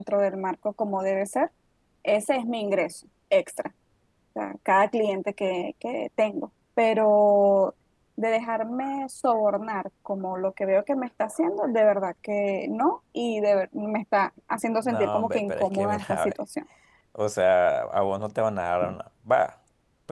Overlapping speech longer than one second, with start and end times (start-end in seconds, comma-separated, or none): 14.8-16.3